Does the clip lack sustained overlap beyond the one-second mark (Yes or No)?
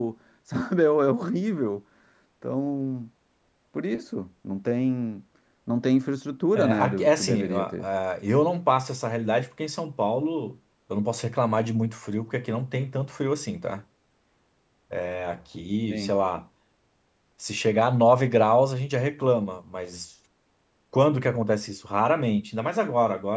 No